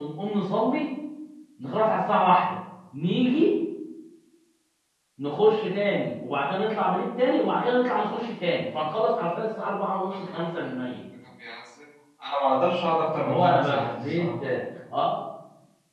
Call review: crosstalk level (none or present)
present